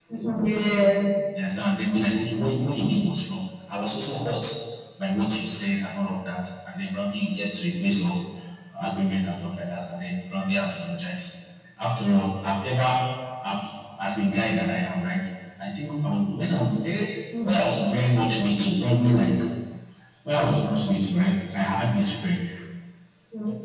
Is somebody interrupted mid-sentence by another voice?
No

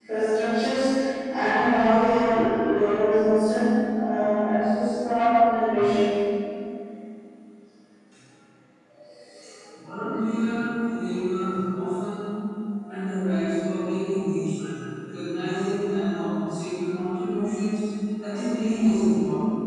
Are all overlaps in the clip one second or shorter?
Yes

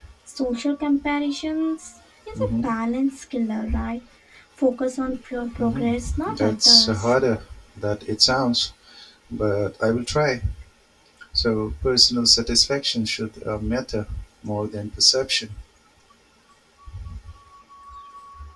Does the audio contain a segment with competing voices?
Yes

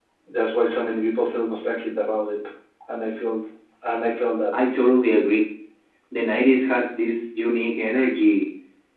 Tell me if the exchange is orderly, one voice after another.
Yes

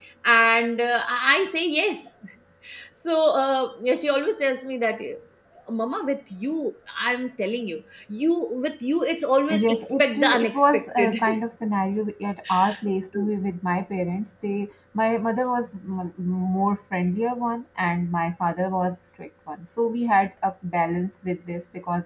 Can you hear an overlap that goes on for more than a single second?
Yes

